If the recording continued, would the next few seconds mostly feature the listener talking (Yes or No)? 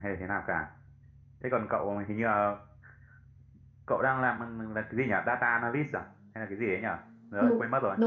Yes